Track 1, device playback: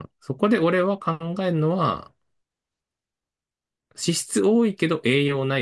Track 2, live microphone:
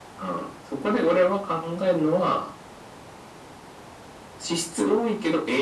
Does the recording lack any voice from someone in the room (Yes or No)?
Yes